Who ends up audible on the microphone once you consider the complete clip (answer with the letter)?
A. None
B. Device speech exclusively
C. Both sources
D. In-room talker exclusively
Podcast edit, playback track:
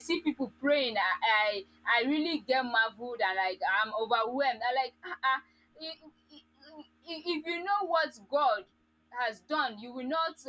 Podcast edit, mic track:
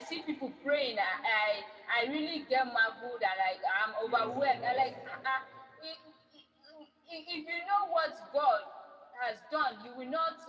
C